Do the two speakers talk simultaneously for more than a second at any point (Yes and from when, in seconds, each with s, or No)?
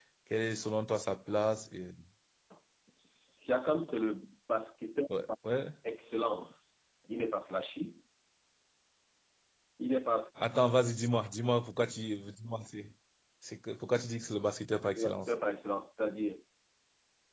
No